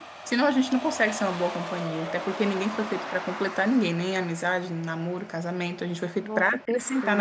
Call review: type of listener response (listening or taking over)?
taking over